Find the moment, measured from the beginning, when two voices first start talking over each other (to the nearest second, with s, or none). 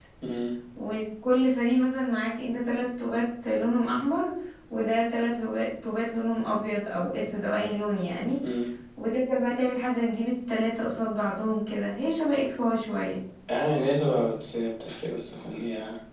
none